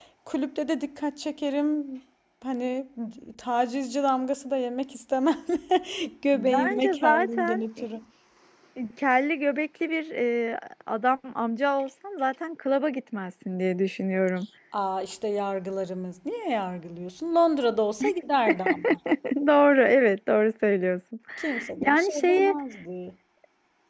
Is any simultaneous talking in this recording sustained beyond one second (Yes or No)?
Yes